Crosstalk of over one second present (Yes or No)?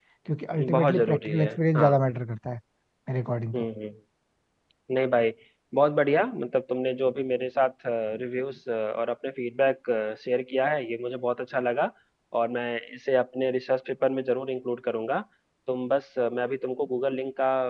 Yes